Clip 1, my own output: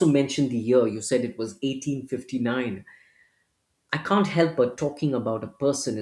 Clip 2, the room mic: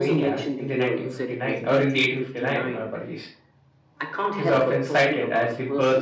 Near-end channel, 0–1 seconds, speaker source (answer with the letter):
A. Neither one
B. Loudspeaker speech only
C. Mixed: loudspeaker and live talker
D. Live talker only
C